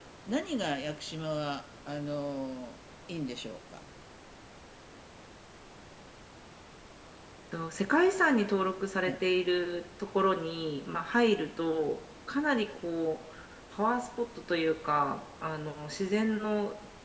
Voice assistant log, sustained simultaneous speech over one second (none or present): none